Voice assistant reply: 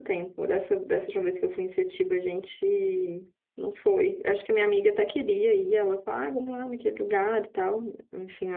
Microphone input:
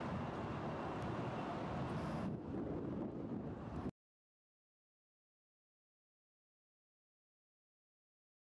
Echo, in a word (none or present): none